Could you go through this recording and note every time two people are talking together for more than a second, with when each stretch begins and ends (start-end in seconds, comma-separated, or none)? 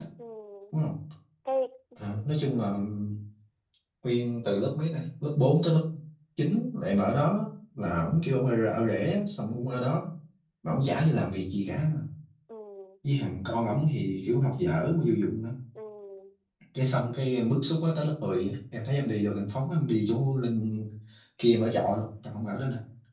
none